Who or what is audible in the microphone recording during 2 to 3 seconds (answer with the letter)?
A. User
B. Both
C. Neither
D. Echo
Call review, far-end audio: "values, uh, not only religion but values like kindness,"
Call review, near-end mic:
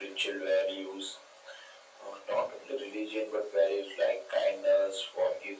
D